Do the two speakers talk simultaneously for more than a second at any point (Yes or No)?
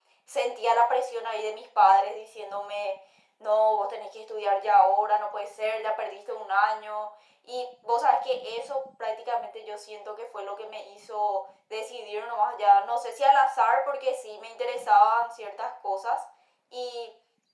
No